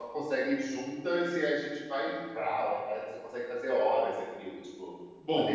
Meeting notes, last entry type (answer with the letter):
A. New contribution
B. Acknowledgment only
A